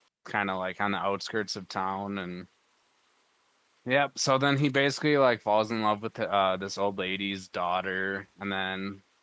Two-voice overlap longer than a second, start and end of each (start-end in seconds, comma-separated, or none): none